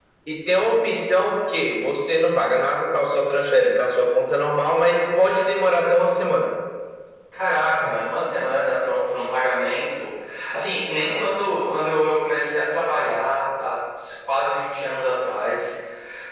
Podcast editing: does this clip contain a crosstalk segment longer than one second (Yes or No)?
No